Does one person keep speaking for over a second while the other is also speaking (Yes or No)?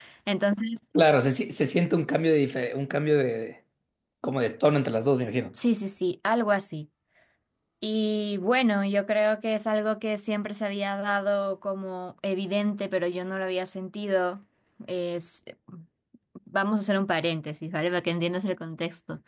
No